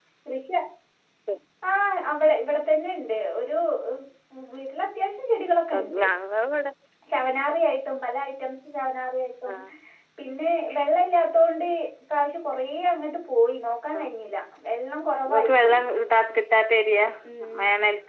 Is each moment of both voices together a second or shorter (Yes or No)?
Yes